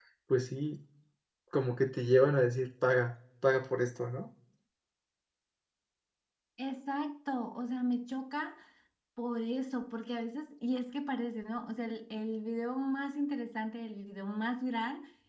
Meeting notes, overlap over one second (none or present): none